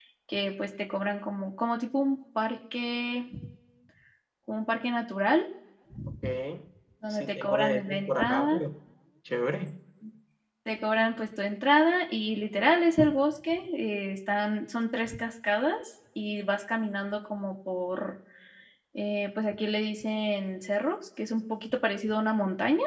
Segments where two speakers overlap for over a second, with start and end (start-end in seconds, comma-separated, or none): 7.1-8.6